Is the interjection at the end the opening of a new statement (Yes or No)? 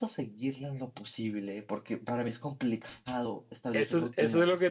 Yes